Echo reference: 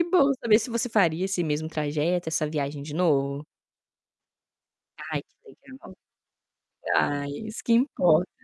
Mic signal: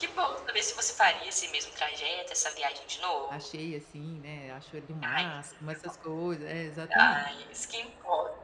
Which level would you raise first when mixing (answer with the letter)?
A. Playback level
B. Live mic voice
B